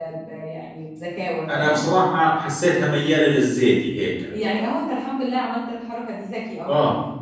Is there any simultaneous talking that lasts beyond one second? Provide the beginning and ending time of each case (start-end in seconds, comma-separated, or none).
none